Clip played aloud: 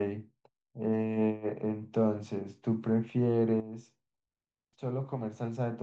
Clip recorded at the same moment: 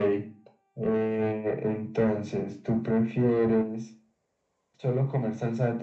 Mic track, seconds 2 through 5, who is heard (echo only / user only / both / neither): echo only